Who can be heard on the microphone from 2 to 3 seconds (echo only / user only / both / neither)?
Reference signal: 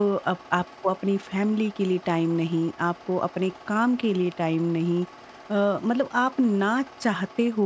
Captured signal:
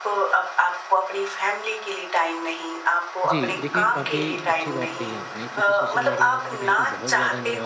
echo only